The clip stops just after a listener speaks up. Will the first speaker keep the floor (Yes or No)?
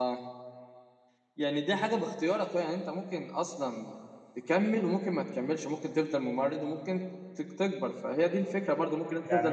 No